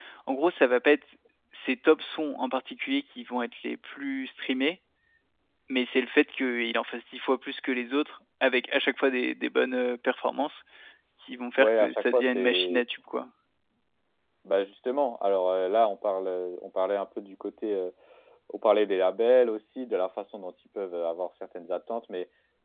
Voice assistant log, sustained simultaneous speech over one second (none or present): present